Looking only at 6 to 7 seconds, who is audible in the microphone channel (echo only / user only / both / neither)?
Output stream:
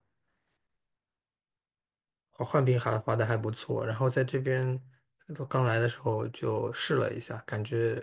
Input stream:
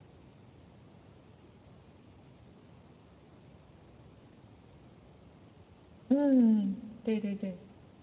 user only